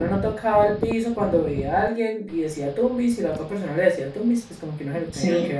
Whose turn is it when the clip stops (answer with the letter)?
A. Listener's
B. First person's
B